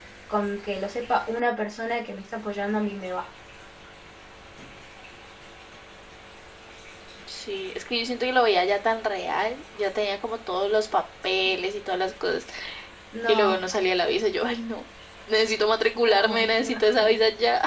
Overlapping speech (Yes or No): Yes